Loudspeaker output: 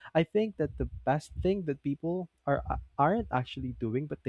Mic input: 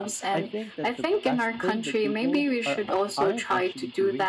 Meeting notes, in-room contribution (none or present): present